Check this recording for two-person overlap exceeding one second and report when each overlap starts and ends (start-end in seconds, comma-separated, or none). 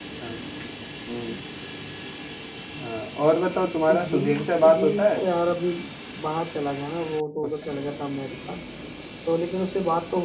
3.9-5.2